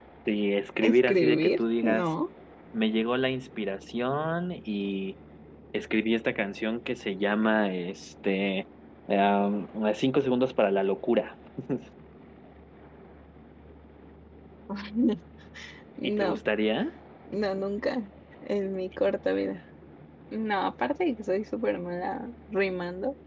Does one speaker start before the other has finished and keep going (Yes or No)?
Yes